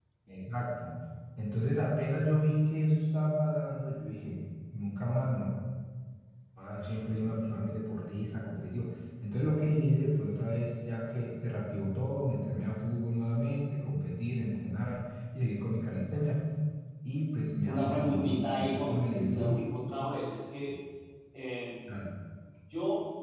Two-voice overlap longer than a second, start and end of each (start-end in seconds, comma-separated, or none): 17.6-19.6